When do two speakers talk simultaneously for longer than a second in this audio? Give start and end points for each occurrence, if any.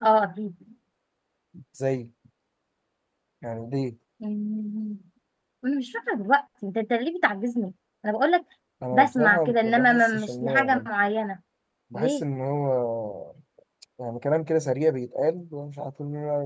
8.9-10.9

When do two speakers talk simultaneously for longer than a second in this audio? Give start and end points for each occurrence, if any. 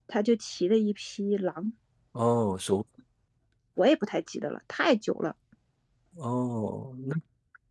none

